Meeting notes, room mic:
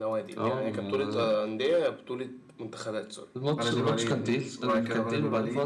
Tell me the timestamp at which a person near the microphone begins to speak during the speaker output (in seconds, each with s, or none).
3.5 s